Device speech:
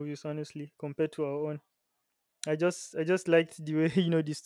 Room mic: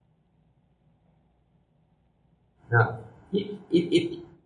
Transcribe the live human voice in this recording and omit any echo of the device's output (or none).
Now, if, if,